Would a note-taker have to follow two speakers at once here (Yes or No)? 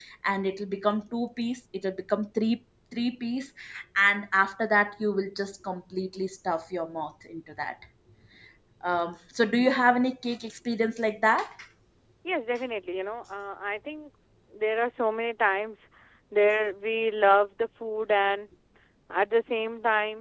No